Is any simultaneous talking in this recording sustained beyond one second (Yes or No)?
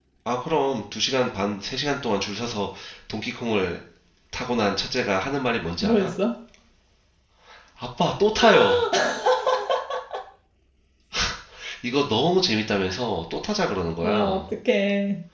No